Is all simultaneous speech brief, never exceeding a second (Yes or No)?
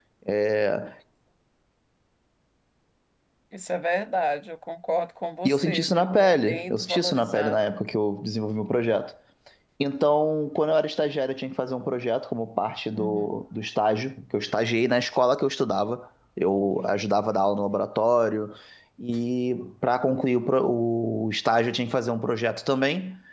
No